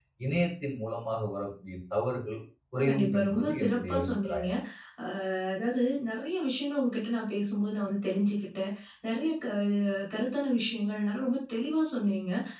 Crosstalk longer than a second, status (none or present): present